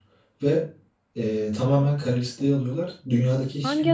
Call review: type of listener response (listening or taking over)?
listening